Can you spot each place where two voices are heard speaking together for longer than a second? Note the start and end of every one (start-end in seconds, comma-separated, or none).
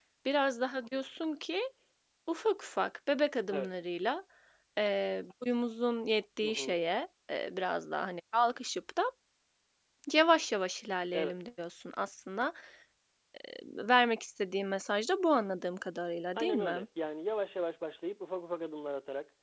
none